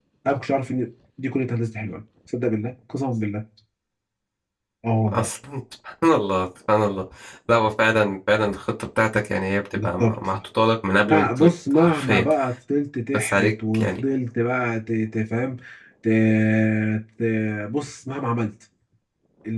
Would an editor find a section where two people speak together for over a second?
Yes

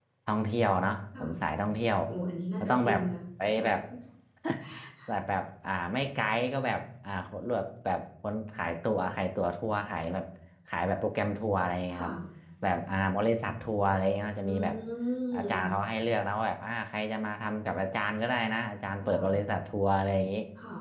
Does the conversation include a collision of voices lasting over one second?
No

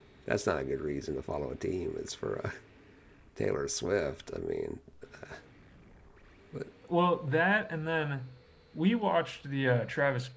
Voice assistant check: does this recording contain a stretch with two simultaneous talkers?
No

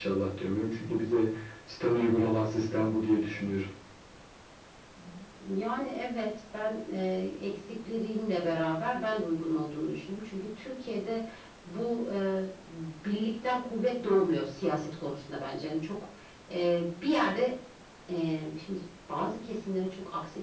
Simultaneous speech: No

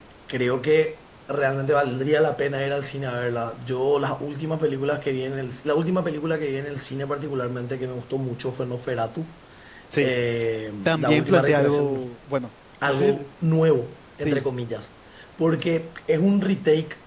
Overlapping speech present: Yes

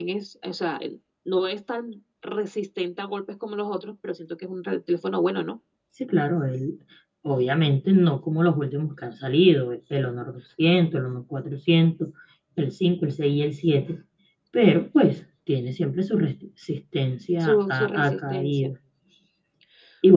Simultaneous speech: Yes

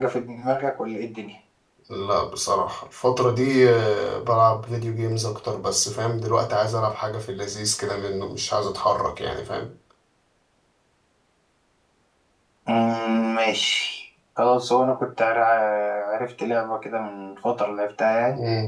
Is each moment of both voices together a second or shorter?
Yes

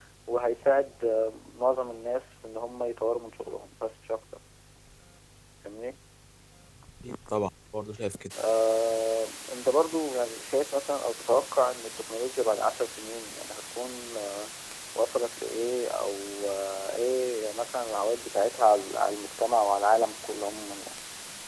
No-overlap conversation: Yes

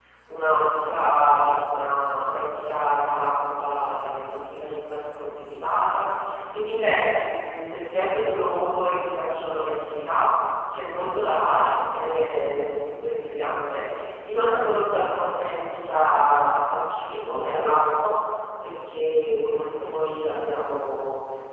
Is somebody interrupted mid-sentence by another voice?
No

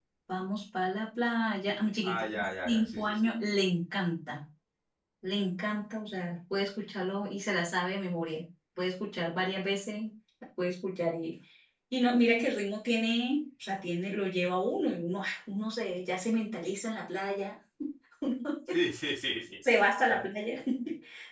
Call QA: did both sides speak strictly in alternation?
No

